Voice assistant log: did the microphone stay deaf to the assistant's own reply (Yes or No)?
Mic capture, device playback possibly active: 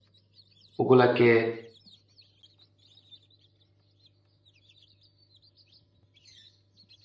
Yes